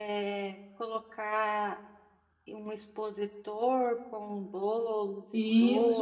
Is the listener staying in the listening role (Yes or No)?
No